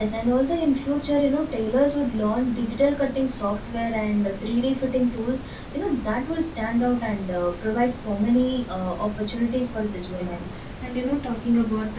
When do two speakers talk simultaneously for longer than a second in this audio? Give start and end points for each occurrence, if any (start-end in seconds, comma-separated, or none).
none